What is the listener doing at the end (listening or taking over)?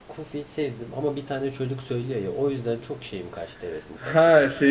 taking over